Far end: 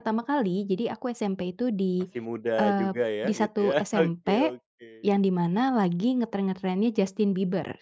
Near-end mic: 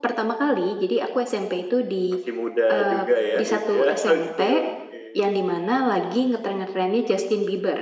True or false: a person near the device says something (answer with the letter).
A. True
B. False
B